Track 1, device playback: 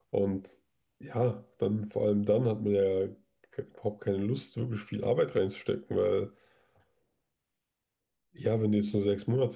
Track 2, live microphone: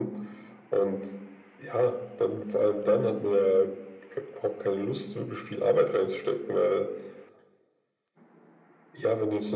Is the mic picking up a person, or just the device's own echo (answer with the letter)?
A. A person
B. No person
B